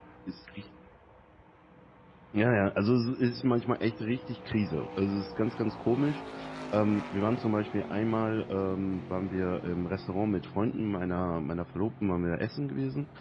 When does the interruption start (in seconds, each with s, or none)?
none